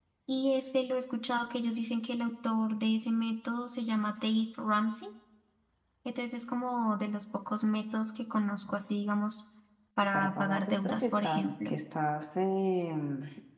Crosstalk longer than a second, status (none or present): present